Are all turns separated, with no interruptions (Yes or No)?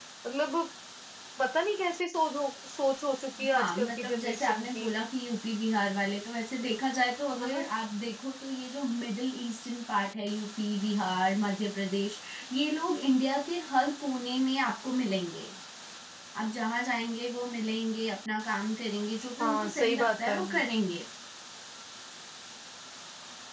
No